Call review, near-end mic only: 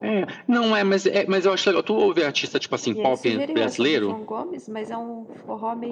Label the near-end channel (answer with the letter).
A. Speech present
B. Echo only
A